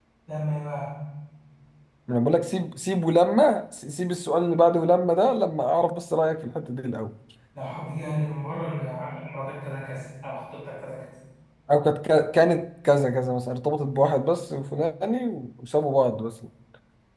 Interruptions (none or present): none